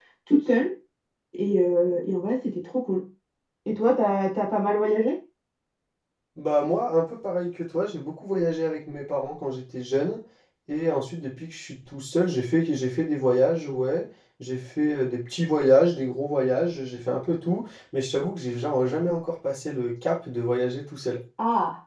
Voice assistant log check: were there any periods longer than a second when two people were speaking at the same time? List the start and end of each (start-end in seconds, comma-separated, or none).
none